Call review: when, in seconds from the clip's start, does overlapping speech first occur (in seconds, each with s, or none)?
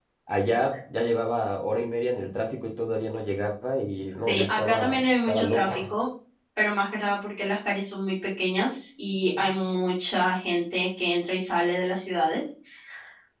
4.3 s